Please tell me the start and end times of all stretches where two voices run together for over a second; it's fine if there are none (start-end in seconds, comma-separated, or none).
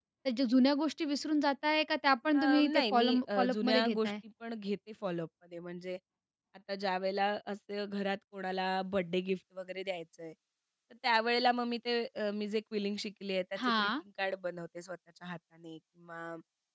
2.3-4.1